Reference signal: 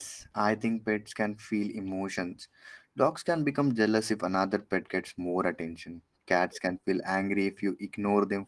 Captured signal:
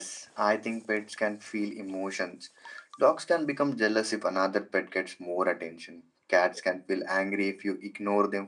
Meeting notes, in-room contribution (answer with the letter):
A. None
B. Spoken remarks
A